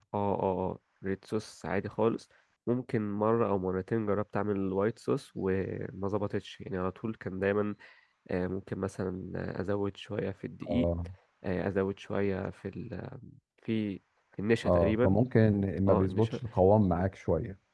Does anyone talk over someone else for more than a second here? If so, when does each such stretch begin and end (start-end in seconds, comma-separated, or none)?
none